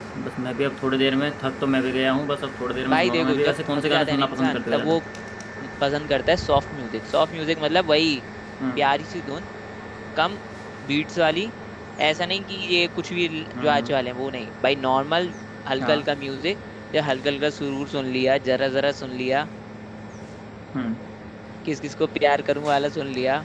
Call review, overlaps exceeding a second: present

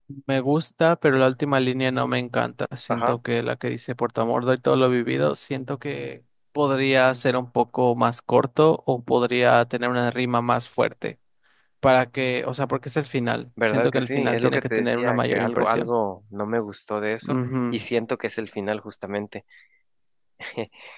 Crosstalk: present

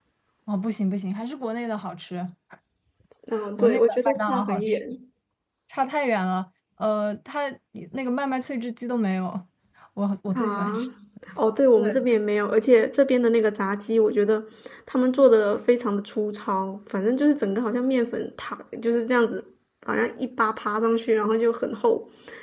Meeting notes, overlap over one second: present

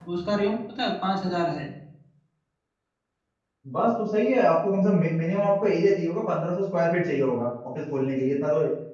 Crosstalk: none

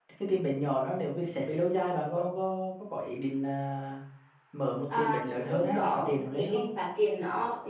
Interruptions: present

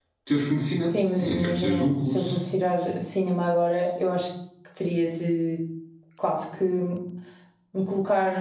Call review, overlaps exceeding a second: present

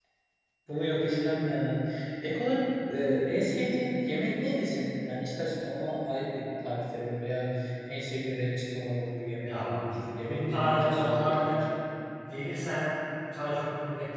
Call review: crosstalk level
present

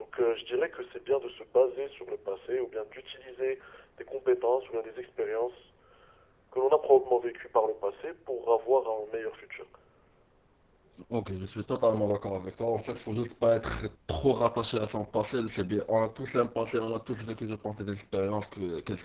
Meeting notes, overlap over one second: none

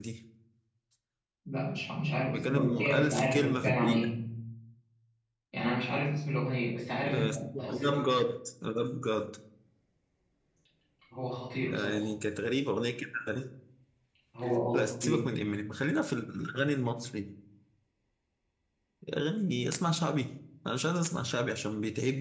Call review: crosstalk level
present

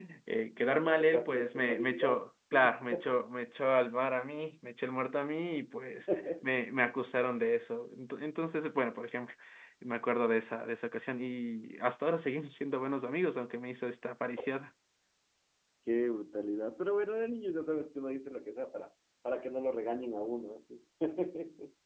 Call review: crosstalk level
present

